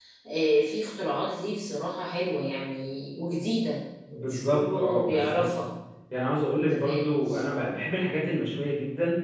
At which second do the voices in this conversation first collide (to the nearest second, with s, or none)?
4 s